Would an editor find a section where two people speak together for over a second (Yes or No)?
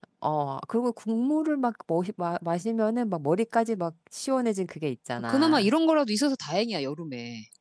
No